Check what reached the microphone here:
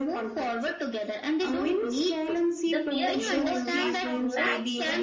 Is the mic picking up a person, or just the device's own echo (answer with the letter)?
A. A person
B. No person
A